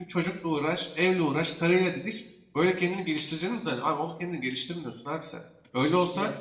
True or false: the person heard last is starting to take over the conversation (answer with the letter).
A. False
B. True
A